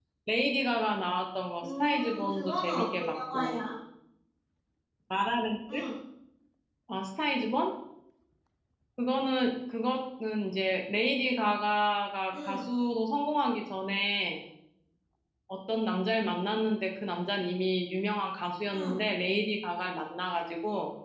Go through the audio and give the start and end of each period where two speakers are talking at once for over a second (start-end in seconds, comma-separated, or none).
1.6-3.6